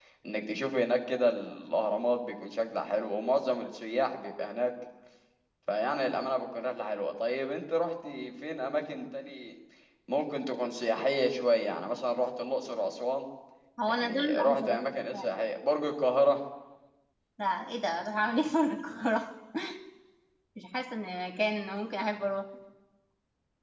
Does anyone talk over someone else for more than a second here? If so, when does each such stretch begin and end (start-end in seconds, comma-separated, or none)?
13.9-15.4